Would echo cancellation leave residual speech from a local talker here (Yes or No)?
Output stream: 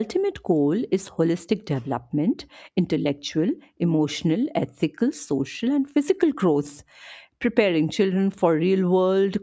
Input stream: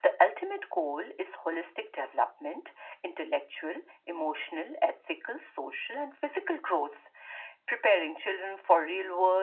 No